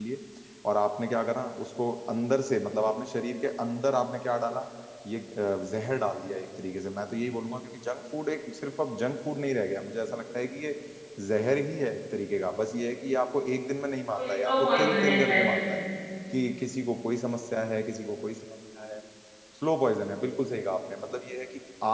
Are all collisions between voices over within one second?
No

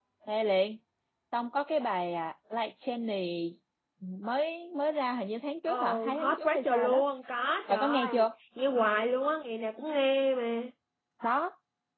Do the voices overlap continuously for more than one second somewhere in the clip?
Yes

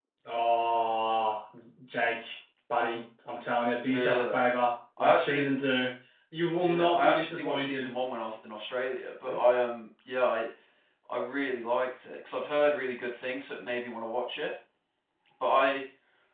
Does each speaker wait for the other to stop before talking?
No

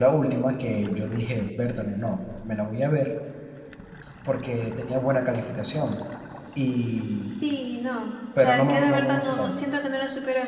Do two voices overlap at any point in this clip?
Yes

